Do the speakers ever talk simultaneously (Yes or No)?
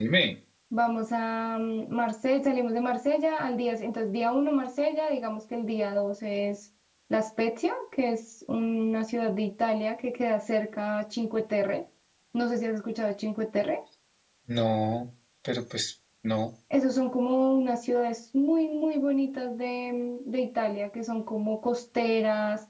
No